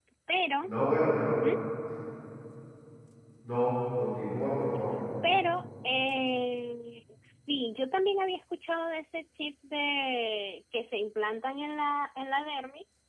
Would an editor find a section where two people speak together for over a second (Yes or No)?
No